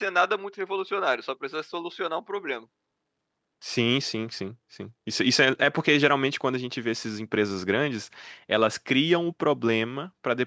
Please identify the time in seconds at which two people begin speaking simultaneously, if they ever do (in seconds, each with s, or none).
none